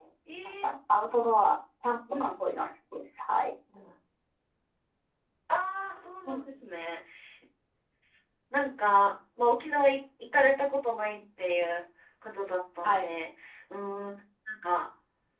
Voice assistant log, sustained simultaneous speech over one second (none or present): none